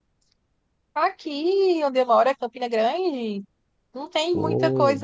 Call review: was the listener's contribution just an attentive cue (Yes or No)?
Yes